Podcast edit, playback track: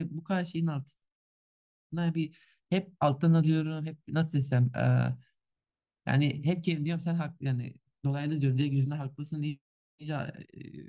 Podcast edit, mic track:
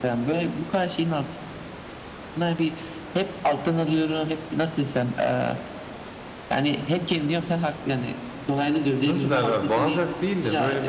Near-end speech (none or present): present